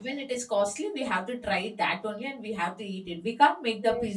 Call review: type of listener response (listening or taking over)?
listening